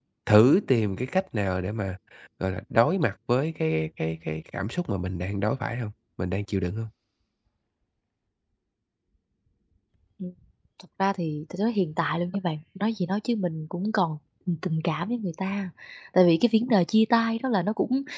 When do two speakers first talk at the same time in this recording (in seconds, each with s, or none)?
none